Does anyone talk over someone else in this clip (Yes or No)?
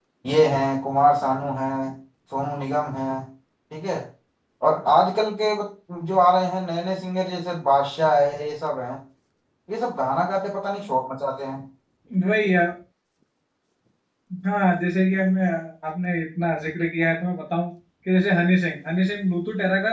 No